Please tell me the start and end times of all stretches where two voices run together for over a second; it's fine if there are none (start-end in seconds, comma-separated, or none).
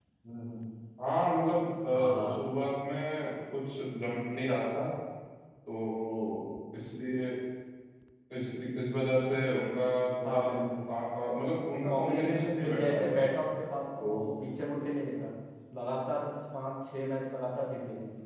11.9-13.2